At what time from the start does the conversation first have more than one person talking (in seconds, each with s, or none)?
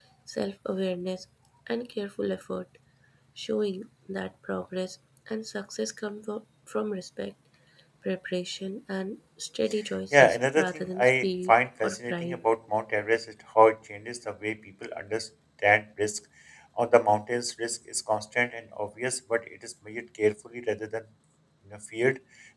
10.1 s